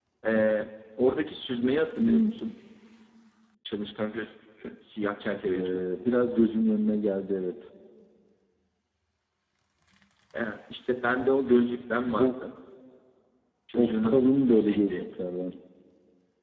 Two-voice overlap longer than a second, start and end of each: 13.8-15.1

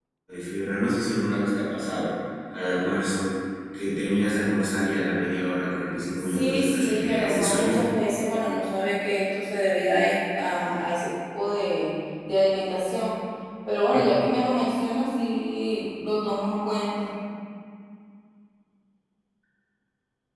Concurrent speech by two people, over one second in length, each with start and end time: 6.2-7.8

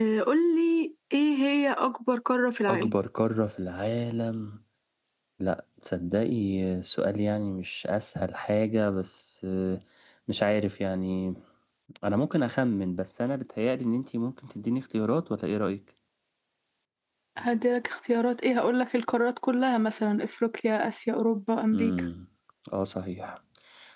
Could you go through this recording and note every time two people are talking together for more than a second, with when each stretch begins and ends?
none

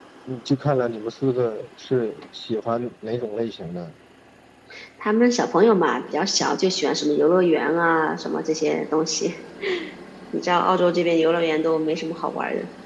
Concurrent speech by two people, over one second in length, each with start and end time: none

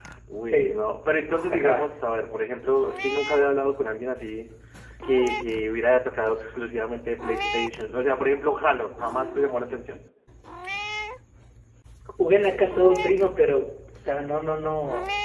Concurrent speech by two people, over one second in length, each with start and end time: none

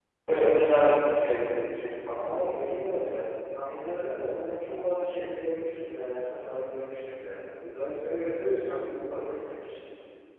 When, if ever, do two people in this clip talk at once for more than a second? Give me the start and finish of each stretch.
none

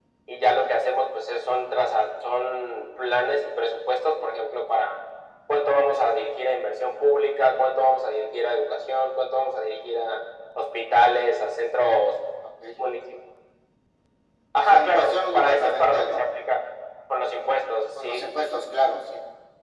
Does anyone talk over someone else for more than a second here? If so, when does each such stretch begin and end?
14.7-16.2

